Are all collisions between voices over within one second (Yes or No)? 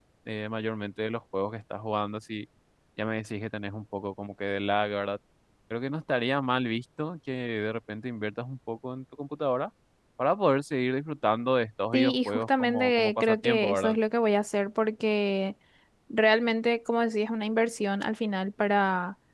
No